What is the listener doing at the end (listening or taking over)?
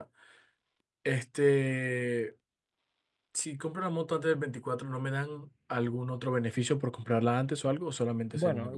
taking over